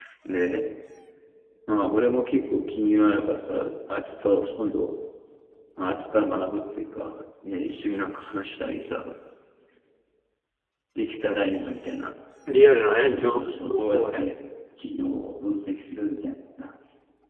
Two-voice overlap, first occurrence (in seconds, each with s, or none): 12.9 s